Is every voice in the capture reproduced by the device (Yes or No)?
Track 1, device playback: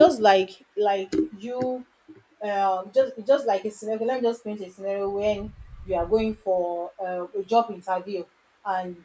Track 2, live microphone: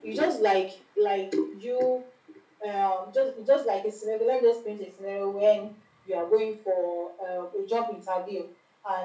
Yes